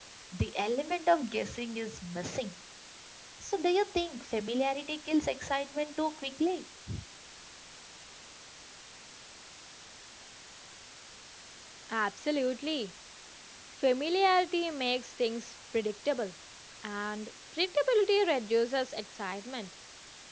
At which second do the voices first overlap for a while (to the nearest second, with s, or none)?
none